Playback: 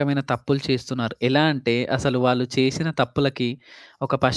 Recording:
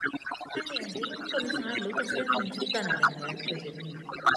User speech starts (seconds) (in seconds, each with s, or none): 0.6 s